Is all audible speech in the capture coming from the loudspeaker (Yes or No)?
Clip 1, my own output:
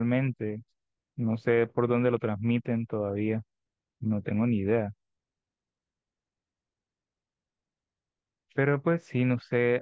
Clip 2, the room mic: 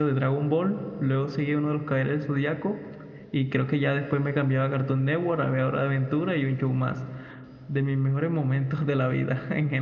No